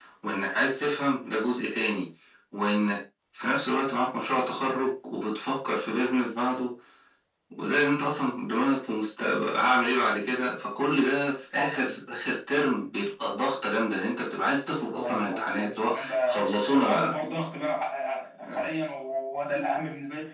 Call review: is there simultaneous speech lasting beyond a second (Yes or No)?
Yes